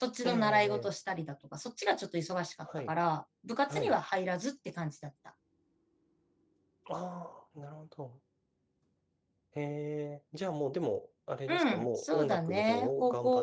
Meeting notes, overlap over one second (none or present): present